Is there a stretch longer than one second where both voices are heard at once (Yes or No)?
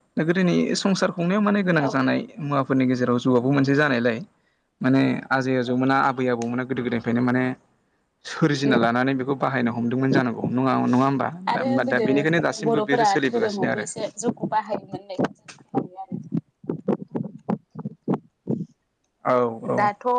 Yes